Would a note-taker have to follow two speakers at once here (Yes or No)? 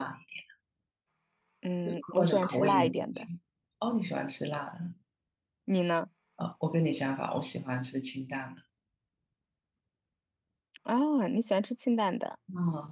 Yes